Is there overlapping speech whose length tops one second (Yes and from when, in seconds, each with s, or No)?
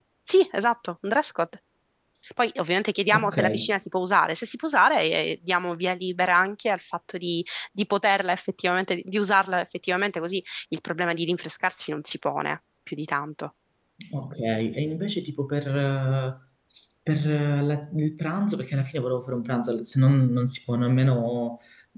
No